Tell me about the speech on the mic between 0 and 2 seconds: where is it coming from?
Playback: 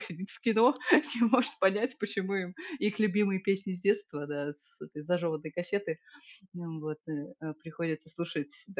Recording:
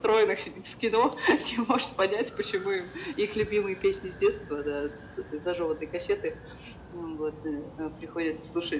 echo only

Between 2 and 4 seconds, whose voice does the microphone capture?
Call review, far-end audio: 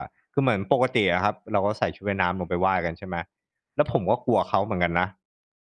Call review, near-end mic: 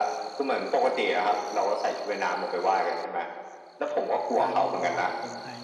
echo only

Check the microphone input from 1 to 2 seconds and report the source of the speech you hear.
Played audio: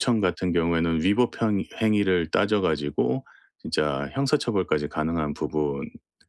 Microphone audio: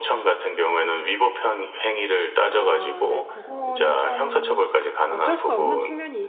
echo only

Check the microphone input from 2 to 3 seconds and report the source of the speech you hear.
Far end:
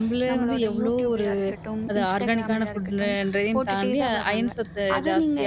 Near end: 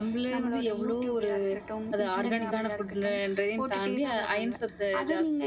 both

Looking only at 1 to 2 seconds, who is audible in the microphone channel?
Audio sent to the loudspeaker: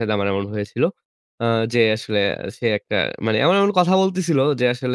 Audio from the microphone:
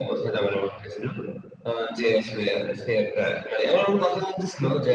echo only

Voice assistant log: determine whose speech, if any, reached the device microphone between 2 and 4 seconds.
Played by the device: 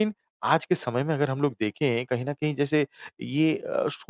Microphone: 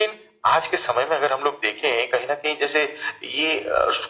echo only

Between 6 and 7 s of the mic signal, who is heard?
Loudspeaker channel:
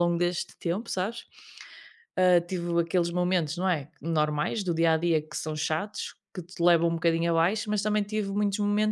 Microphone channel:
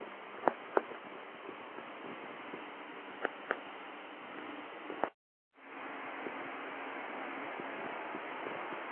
neither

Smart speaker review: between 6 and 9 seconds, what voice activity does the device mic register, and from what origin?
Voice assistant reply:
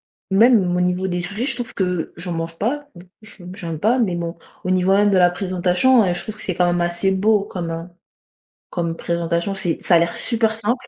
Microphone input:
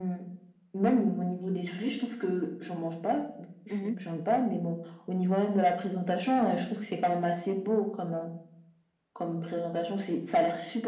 echo only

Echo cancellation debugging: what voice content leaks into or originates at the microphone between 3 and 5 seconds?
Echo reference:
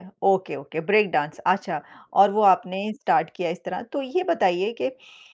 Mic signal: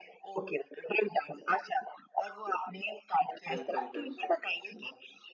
both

